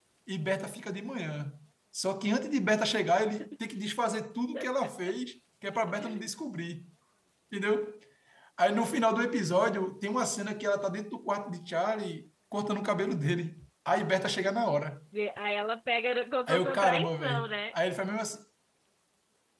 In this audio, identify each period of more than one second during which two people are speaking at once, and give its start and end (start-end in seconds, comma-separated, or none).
16.5-17.8